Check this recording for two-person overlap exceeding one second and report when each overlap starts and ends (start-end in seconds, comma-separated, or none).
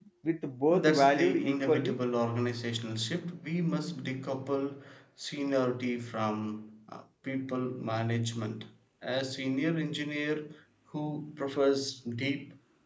0.7-2.0